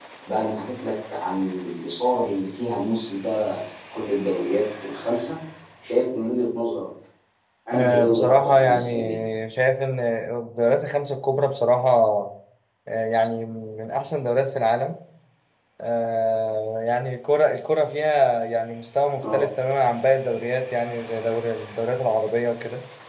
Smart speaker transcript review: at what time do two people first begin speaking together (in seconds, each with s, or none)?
7.7 s